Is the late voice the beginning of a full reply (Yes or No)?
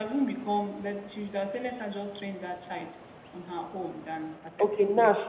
Yes